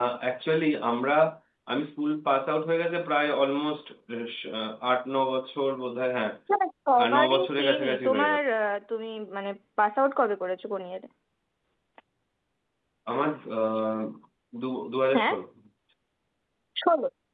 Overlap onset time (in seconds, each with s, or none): 7.0 s